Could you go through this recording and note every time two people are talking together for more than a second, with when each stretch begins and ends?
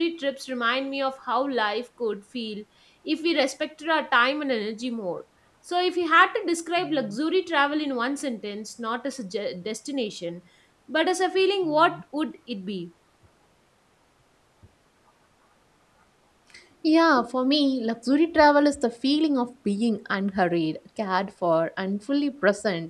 none

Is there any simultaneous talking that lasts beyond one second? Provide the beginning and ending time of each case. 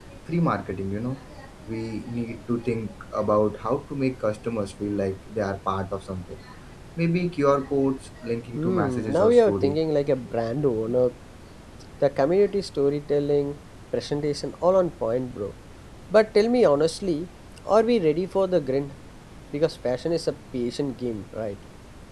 8.6-9.8

